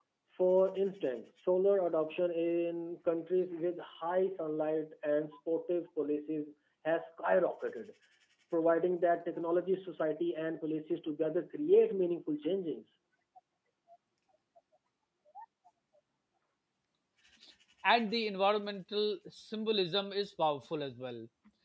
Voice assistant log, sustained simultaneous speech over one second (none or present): none